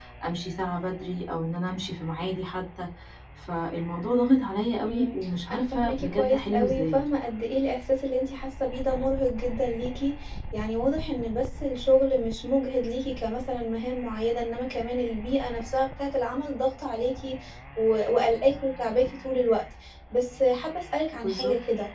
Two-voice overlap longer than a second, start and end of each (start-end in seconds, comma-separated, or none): 4.9-7.0